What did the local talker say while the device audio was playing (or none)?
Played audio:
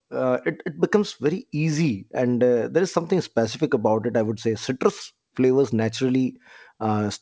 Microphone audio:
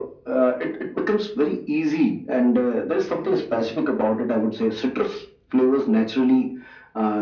none